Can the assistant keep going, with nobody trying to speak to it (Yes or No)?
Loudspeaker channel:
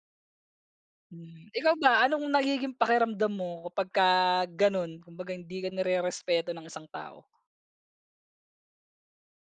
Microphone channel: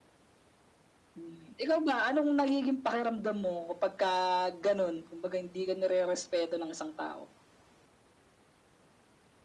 Yes